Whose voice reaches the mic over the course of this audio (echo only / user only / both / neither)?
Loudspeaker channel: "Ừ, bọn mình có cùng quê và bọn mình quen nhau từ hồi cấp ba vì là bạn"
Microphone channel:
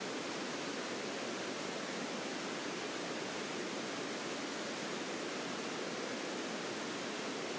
neither